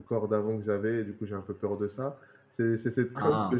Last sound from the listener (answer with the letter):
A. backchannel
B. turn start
A